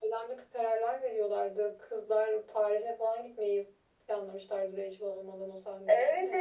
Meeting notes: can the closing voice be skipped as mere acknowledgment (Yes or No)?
No